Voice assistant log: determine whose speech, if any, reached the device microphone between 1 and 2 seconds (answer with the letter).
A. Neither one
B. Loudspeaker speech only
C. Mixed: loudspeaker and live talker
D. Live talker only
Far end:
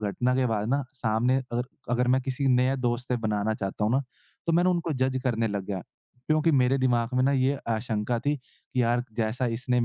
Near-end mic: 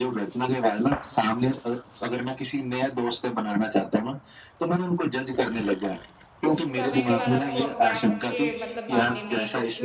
B